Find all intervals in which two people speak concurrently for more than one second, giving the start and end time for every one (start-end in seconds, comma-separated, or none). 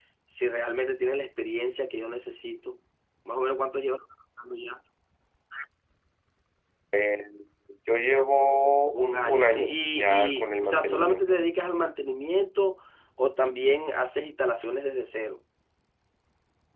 8.9-11.4